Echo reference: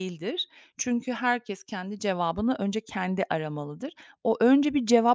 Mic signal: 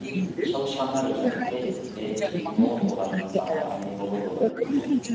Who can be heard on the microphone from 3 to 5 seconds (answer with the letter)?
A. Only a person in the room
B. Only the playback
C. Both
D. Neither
C